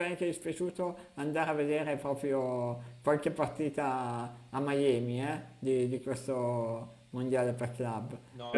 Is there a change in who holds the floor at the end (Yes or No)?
Yes